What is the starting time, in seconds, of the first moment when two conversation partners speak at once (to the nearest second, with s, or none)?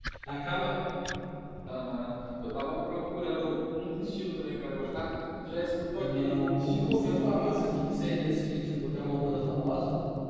6 s